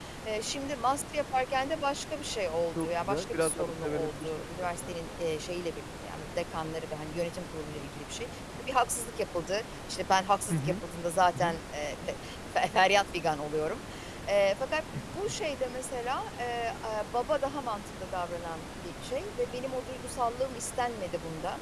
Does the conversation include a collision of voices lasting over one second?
Yes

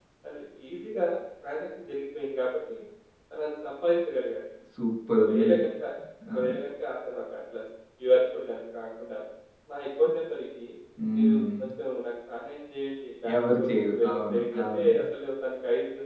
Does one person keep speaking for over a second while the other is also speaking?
Yes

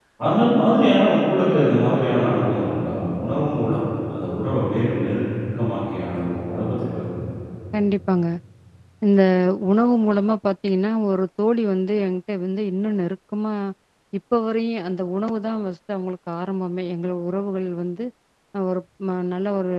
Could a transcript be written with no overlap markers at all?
Yes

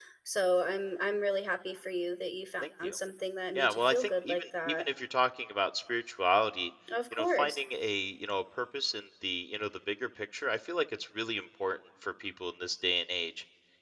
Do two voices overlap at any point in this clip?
Yes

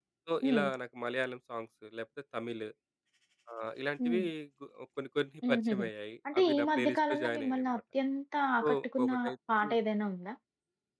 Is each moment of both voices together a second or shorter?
No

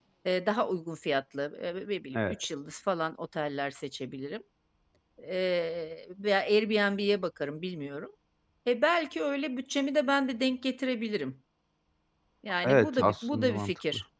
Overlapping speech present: Yes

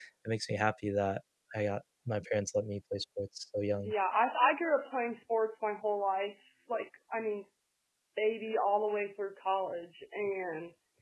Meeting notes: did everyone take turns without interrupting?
Yes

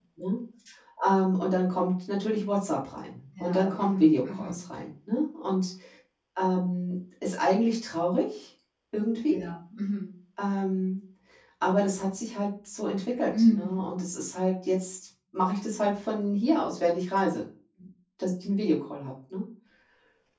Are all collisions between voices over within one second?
No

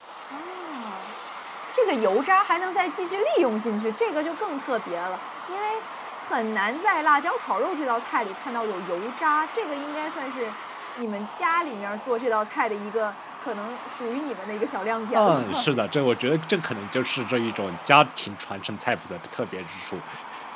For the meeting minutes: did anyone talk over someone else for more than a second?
No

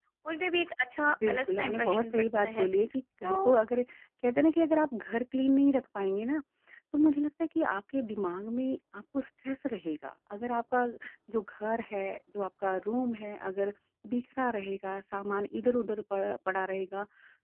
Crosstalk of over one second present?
Yes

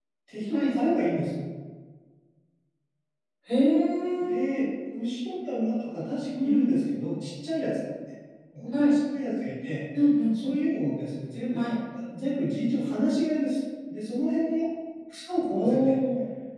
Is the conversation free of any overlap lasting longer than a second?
Yes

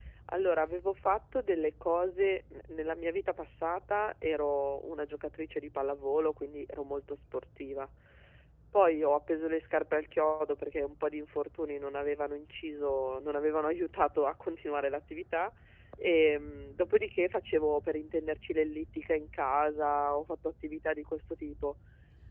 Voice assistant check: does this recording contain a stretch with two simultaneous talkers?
No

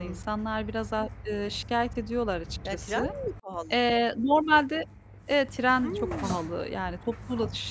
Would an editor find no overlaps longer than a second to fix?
Yes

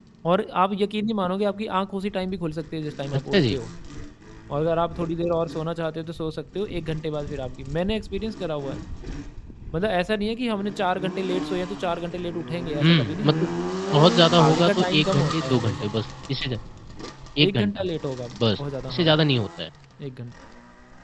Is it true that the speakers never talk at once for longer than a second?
No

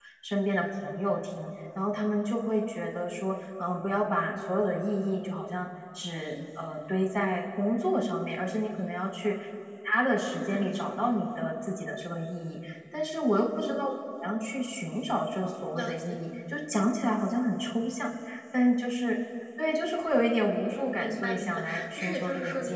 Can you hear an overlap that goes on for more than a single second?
Yes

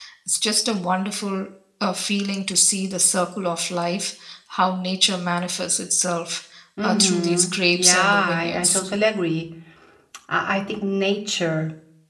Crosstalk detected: Yes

